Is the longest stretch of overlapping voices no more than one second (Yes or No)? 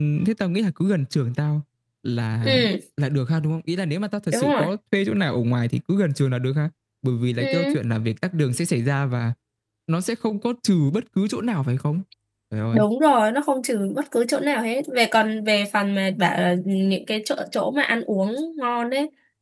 Yes